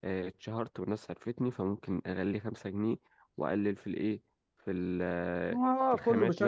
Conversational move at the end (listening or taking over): taking over